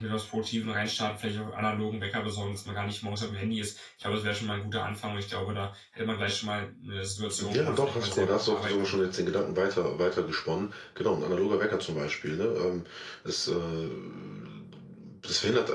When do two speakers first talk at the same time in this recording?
7.4 s

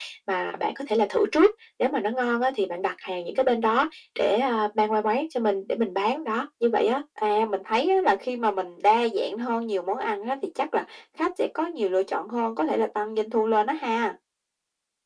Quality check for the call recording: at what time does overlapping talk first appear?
none

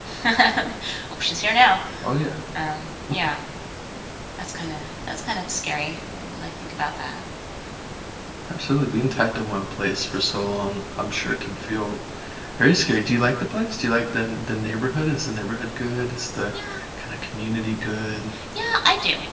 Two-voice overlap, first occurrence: none

